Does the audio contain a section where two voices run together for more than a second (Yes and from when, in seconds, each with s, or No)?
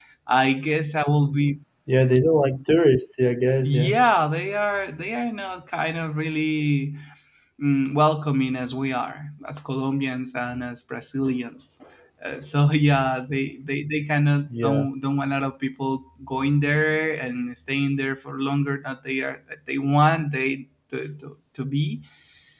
No